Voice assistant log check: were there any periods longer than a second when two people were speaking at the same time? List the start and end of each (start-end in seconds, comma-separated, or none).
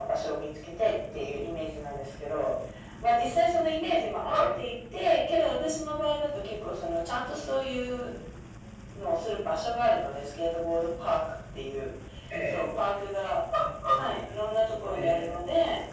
14.0-15.4